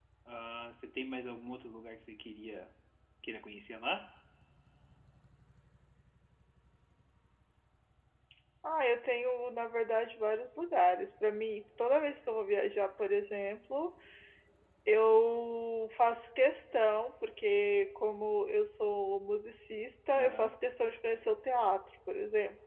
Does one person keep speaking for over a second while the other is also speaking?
No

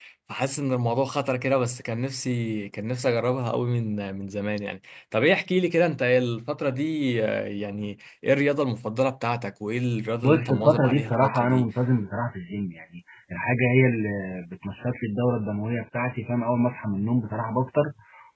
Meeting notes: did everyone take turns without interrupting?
No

